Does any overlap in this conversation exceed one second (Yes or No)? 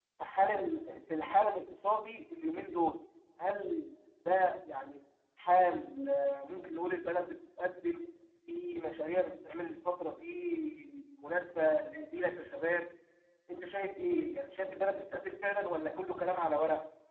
No